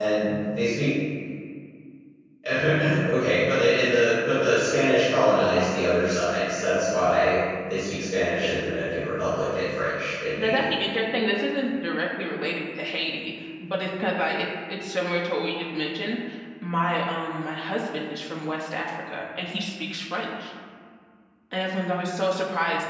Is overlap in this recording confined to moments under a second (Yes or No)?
Yes